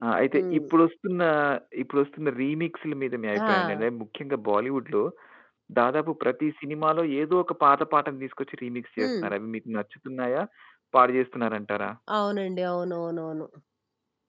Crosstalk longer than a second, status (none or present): none